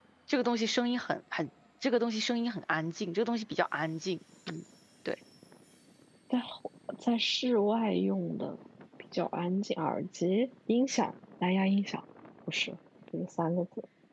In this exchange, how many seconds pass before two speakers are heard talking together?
none

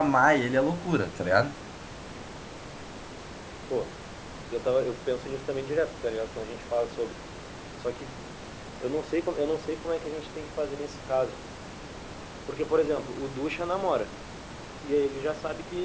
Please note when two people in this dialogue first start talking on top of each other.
none

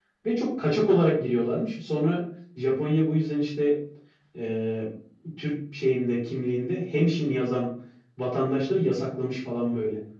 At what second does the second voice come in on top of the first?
none

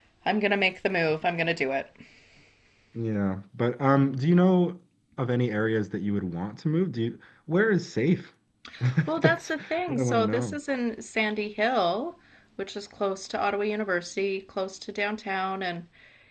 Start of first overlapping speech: 9.2 s

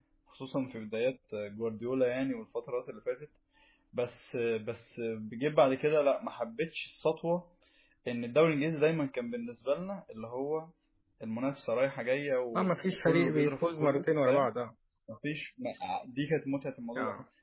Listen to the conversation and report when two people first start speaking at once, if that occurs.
12.6 s

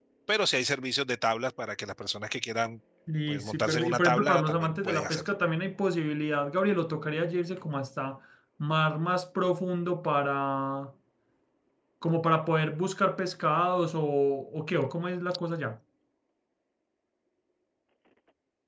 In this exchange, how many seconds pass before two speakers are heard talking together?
3.3 s

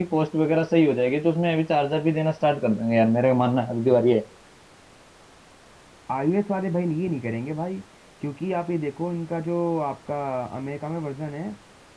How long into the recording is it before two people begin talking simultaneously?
none

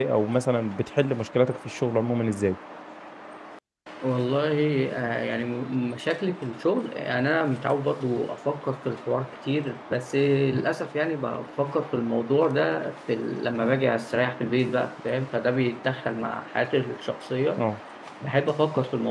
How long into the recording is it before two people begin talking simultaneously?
none

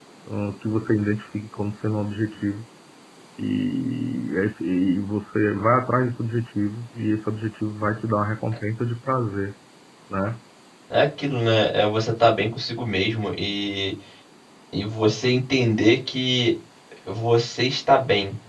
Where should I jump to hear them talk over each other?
none

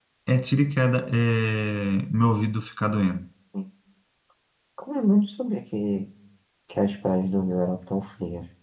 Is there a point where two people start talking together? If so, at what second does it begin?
none

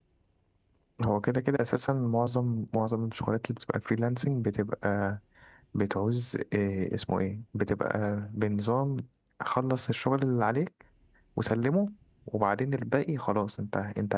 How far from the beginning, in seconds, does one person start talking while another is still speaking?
none

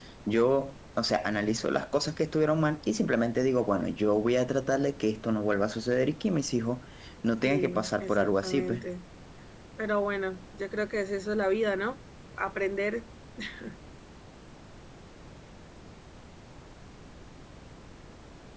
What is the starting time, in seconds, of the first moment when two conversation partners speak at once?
7.4 s

